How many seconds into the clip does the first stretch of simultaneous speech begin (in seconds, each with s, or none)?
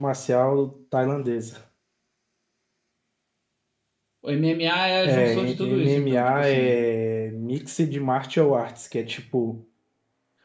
5.0 s